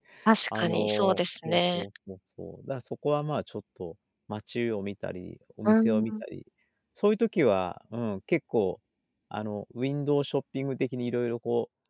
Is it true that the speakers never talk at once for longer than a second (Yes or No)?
No